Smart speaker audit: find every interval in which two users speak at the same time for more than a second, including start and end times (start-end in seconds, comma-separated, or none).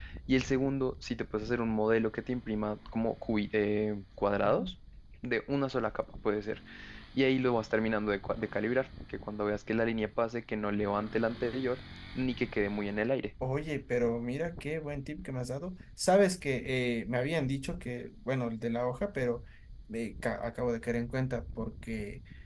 none